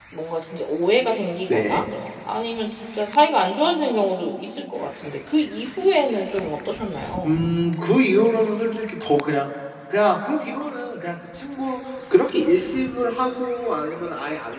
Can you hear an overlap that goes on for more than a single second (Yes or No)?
No